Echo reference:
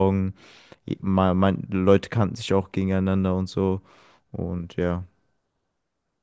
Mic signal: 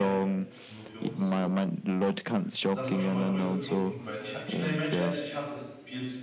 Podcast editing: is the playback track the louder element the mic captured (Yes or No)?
Yes